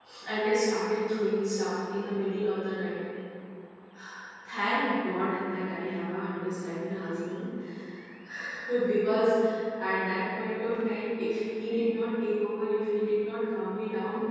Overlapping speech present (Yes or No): No